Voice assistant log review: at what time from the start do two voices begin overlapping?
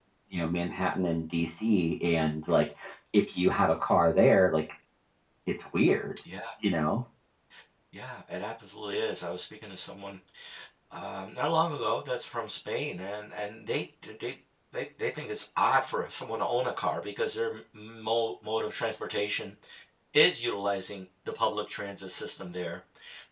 none

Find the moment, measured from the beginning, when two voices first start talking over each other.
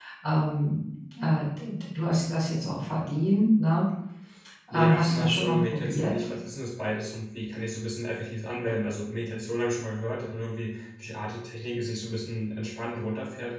4.7 s

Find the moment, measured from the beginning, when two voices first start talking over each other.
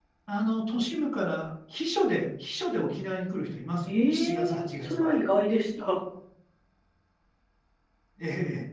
3.9 s

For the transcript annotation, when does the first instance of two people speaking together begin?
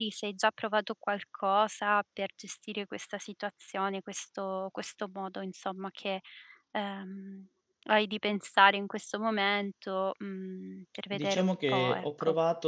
11.1 s

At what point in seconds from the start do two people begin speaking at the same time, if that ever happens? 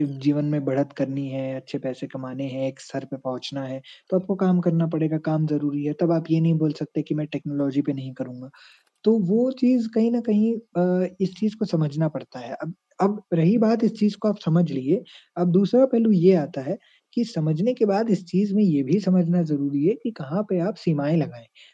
none

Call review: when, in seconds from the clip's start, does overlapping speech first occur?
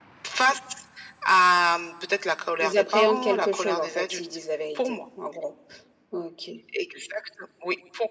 2.6 s

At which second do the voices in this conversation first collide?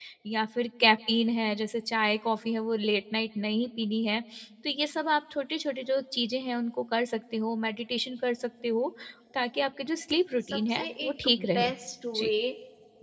10.5 s

